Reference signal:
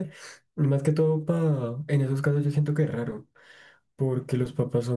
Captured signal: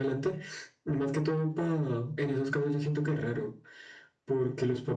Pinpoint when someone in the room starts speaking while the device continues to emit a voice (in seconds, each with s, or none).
none